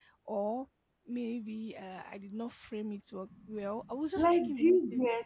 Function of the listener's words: taking over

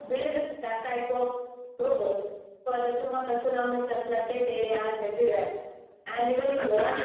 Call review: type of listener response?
taking over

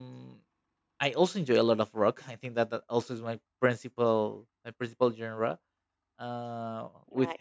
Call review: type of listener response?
listening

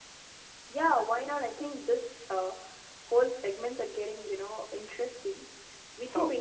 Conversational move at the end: listening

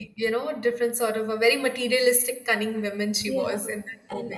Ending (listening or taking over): taking over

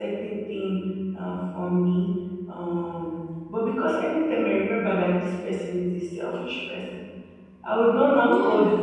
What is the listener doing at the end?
listening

